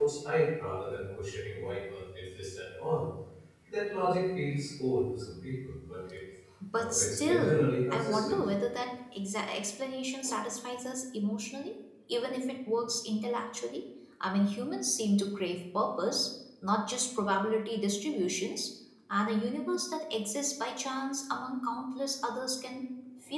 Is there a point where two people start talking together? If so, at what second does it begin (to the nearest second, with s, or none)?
7 s